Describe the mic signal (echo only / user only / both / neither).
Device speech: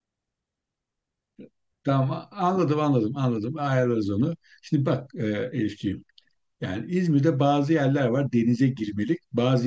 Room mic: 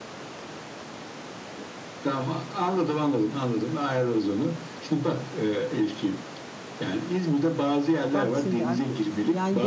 both